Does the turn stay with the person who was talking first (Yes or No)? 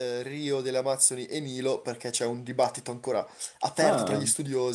Yes